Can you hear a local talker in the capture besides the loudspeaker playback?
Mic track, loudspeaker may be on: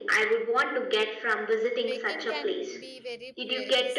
Yes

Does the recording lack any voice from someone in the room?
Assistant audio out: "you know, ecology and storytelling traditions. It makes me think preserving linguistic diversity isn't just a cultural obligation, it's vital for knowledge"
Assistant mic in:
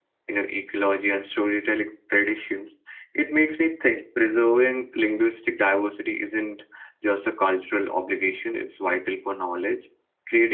Yes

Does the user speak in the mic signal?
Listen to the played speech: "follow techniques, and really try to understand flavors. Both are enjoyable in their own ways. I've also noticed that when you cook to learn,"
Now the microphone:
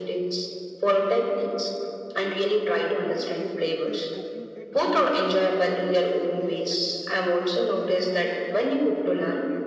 Yes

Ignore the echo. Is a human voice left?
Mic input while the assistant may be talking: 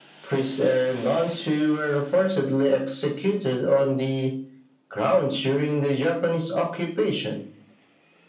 No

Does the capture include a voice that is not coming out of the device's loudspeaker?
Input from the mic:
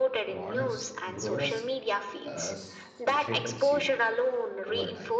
Yes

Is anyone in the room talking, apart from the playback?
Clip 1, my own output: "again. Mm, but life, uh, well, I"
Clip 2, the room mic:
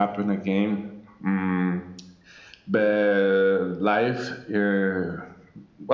No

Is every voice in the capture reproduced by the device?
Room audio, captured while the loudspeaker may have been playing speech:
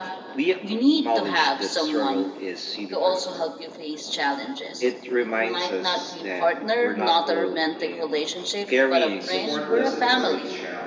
No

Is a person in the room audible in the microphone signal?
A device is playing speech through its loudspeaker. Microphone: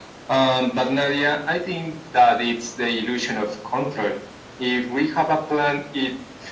No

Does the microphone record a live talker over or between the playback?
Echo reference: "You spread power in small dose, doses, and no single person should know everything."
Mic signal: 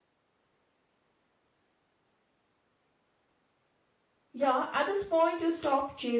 Yes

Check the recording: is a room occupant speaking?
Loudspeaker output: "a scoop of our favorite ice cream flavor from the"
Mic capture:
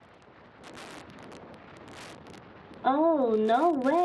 Yes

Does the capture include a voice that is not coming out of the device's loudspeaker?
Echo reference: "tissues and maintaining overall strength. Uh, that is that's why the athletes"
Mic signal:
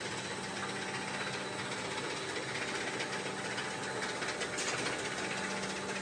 No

